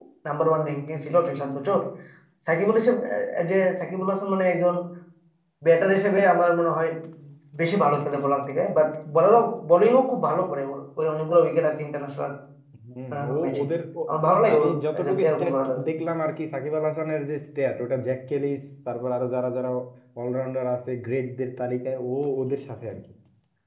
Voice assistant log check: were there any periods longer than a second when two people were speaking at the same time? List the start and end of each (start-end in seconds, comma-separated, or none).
14.5-15.8